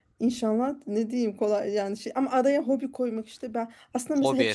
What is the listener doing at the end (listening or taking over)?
listening